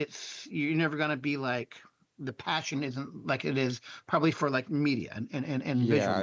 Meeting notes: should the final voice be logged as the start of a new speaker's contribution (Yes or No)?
Yes